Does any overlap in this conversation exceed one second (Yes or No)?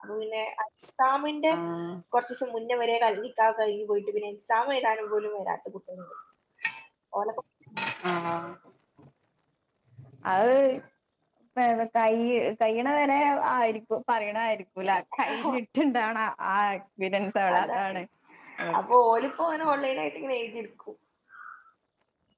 No